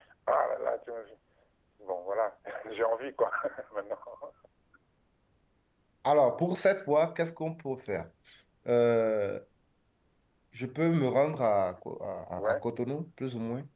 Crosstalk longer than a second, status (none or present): none